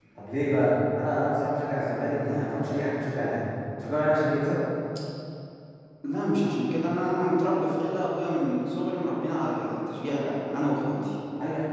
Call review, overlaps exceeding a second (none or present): none